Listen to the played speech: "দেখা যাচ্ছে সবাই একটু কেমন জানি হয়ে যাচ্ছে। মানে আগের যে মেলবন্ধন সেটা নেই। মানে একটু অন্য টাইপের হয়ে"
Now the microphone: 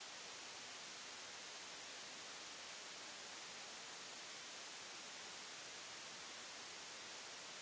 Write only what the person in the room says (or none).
none